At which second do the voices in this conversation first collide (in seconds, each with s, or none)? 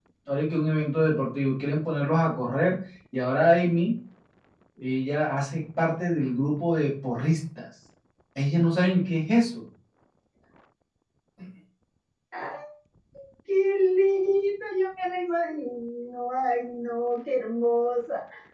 none